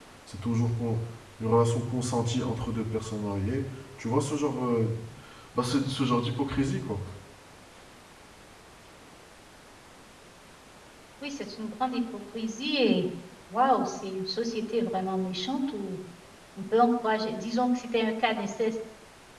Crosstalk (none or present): none